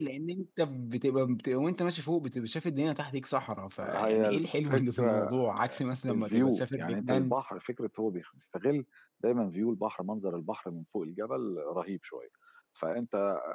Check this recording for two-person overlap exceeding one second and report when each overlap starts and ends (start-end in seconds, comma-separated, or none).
3.8-5.3, 6.1-7.4